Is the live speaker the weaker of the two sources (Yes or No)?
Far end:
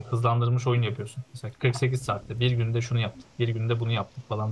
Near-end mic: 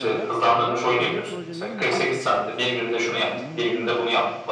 Yes